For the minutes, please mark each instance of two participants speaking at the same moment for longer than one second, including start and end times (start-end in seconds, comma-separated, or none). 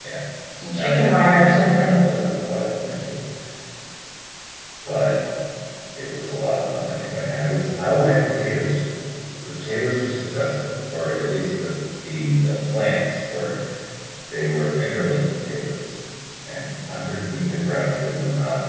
0.7-1.9